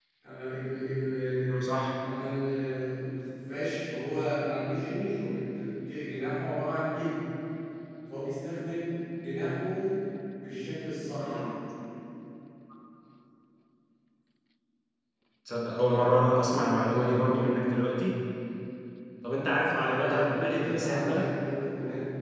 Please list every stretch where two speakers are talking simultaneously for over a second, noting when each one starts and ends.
19.7-21.2

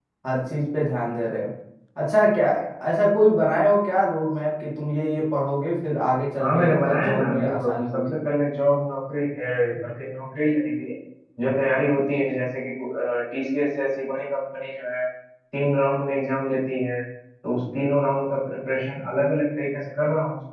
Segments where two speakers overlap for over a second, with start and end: 6.4-8.0

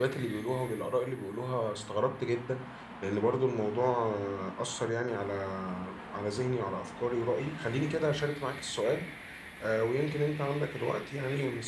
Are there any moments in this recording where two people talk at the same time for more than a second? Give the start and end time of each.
none

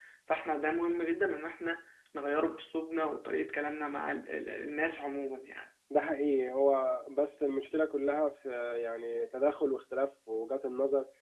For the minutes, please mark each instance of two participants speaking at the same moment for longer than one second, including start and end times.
none

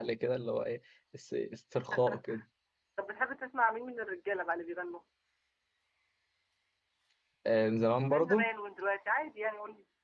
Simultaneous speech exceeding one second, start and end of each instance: none

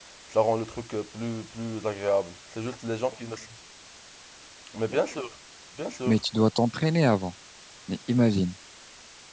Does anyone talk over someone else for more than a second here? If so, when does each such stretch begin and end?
none

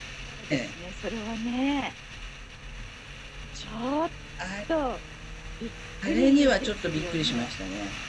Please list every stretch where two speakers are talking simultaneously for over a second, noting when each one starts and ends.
6.0-7.5

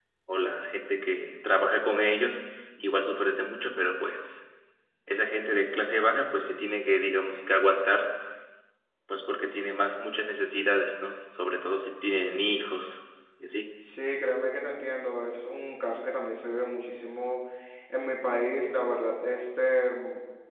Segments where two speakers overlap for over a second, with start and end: none

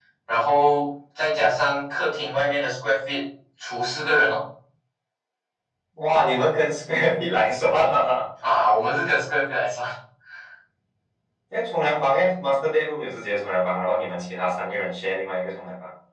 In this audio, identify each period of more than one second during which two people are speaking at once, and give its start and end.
none

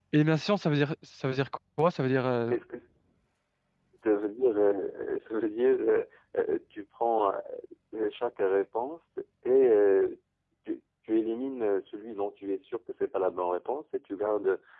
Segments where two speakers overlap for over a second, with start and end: none

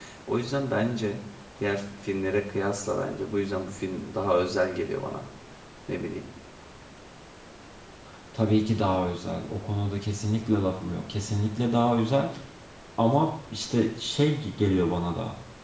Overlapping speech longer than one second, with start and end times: none

